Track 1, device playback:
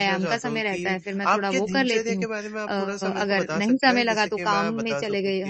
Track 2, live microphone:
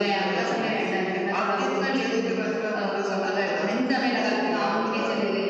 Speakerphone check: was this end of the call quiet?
Yes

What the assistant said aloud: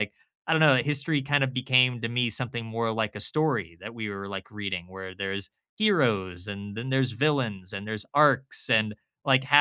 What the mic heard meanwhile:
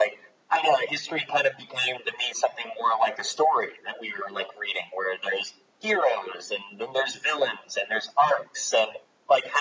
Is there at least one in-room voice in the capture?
No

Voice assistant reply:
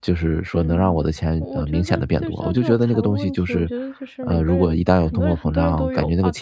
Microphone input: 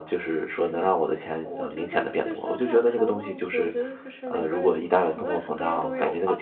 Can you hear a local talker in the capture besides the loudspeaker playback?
No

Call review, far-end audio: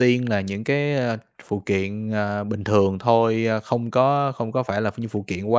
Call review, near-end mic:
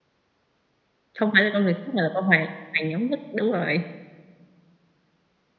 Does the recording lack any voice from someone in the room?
No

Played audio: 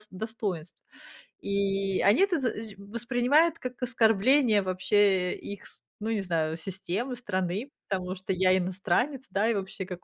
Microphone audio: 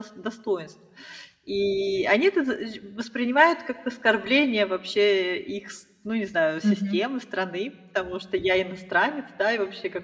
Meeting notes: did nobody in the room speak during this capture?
No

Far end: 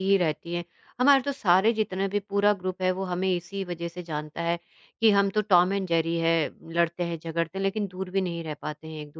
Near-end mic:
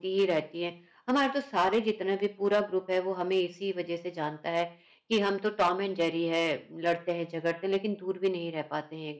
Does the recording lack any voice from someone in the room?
Yes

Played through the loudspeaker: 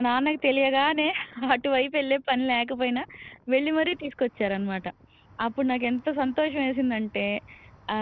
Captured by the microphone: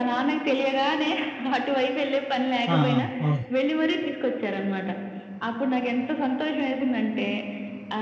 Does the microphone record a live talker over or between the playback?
Yes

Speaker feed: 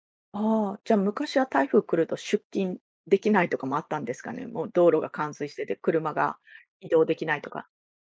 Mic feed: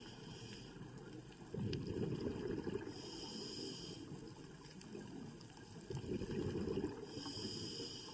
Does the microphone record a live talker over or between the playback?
No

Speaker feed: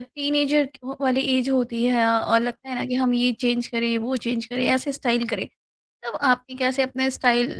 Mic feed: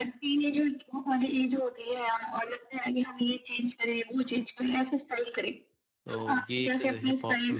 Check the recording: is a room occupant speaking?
Yes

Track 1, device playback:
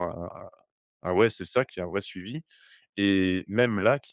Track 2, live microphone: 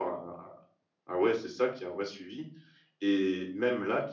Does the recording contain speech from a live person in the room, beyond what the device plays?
No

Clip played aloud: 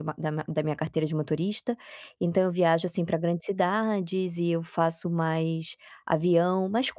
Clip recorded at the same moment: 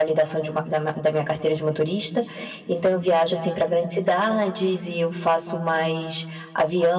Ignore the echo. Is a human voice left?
No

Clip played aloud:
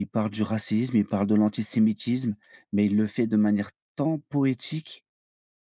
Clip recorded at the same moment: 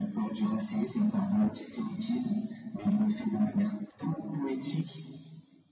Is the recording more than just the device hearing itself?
No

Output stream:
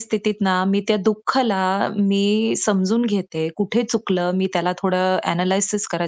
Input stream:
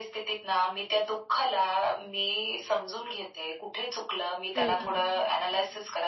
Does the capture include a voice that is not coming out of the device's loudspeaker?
Yes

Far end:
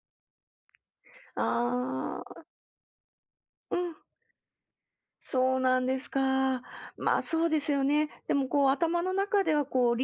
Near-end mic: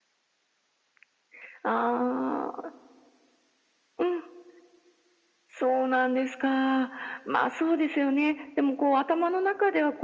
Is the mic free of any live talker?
Yes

